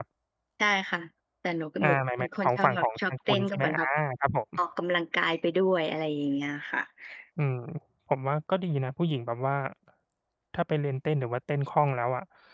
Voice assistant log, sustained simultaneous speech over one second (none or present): present